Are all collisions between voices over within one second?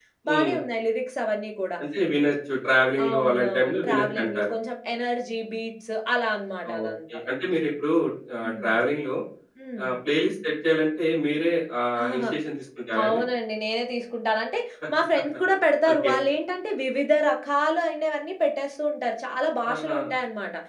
No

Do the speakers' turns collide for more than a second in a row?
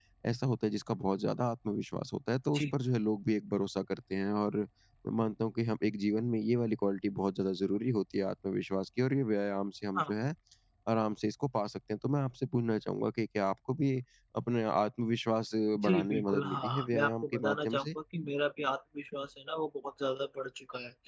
Yes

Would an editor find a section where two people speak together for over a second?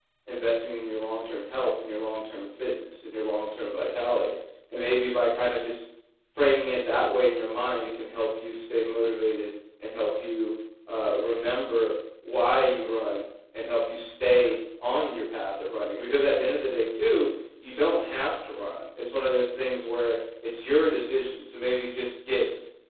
No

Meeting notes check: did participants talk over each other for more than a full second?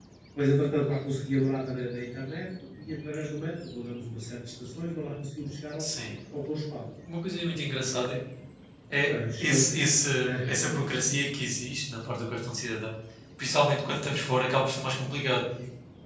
No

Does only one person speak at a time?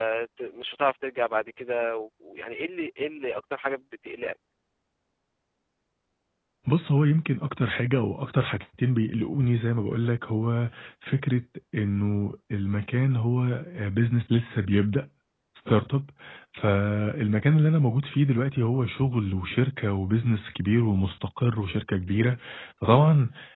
Yes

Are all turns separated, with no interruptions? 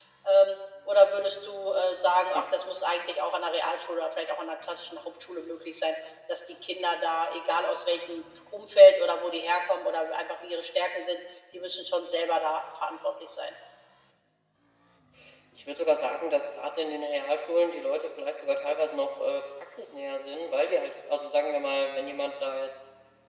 Yes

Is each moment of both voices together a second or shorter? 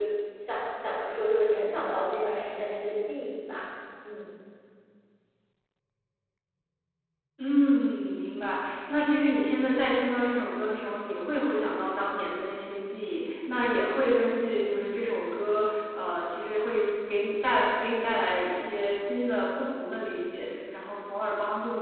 Yes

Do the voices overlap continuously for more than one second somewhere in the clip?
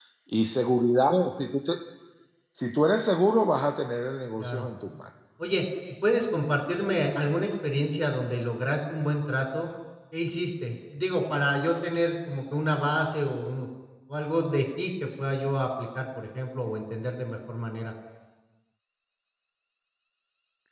No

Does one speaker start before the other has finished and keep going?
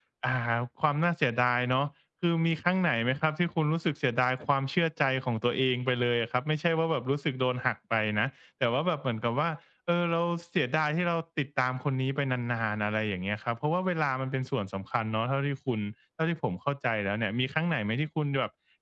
No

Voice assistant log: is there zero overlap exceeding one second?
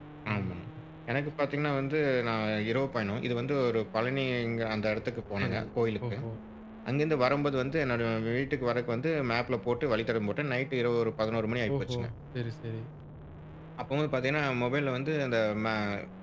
Yes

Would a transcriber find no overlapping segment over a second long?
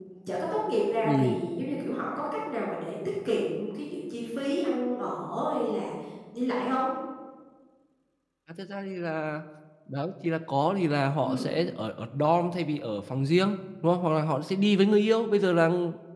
Yes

